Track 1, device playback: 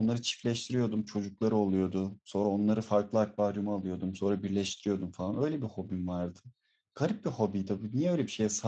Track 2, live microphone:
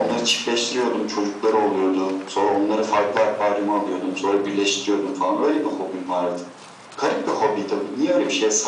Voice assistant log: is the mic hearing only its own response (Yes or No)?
Yes